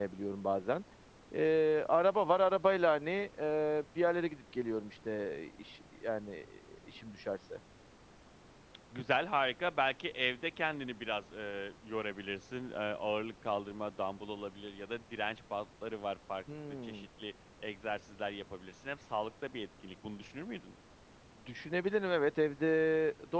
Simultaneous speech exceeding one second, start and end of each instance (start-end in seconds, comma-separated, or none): none